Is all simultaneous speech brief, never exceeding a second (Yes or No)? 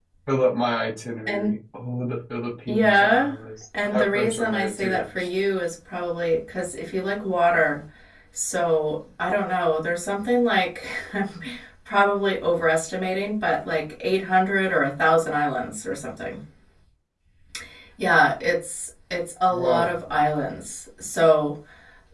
No